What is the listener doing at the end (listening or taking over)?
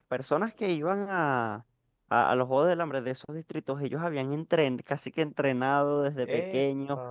listening